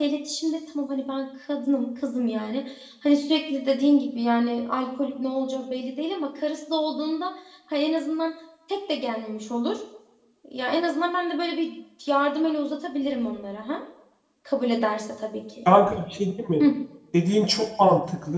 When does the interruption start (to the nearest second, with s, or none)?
none